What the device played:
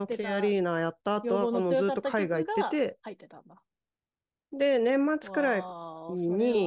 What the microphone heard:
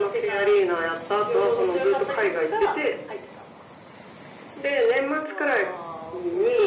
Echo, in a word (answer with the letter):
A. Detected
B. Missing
A